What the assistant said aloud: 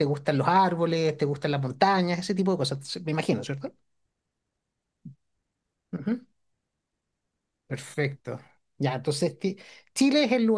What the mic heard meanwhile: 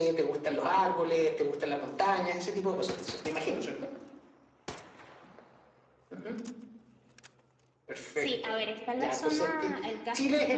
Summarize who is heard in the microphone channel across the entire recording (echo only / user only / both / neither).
both